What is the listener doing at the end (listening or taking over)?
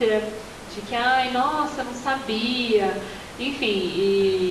listening